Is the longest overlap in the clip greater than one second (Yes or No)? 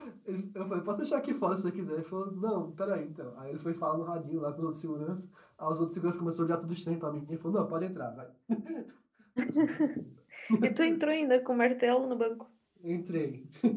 No